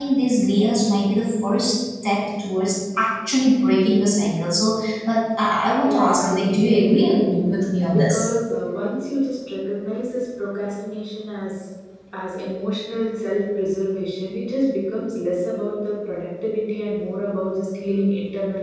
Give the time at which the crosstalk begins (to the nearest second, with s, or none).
6 s